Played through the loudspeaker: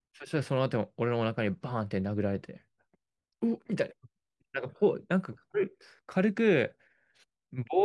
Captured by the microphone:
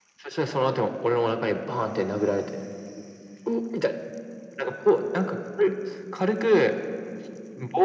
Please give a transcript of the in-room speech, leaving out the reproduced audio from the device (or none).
none